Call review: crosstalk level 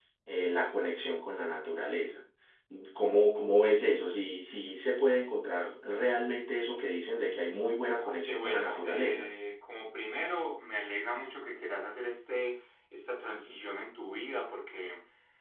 present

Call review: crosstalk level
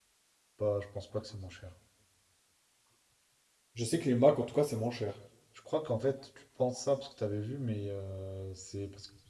none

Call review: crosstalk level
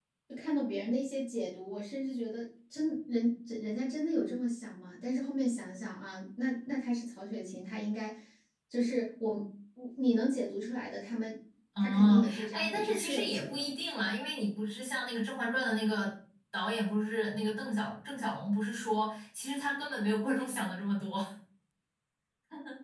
present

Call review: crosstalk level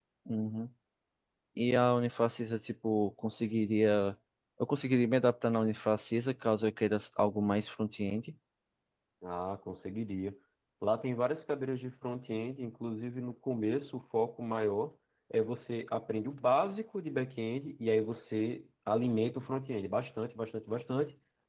none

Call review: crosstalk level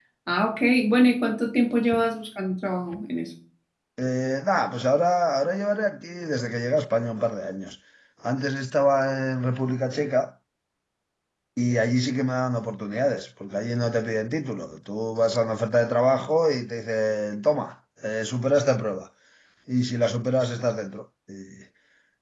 none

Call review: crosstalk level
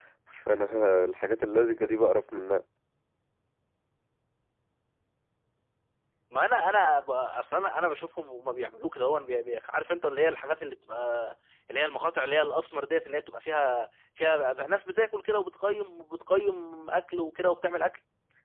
none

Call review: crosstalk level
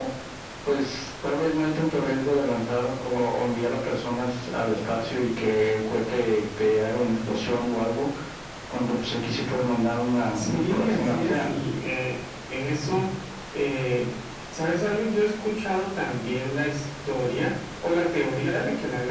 present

